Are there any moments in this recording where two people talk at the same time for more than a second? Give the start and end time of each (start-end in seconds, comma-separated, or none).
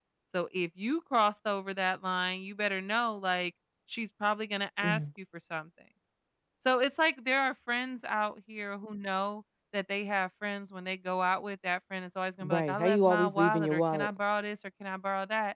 12.4-14.1